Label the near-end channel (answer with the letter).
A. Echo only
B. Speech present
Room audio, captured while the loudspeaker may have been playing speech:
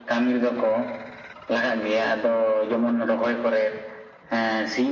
A